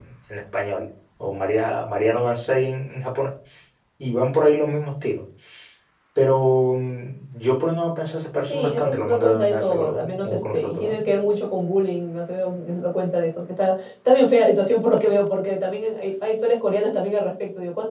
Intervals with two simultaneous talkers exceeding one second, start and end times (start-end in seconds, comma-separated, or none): 8.5-11.0